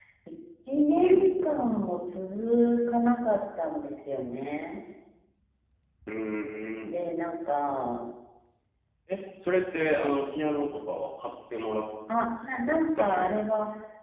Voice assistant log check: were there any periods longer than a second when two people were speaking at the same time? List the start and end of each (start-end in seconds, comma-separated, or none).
none